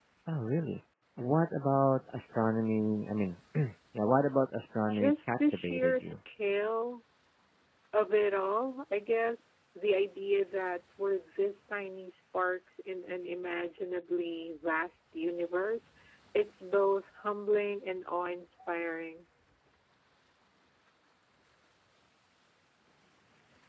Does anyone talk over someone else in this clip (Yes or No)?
Yes